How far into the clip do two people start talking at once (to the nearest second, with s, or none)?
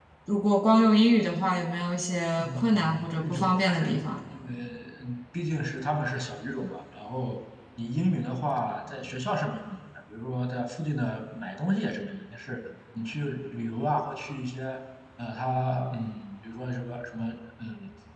2 s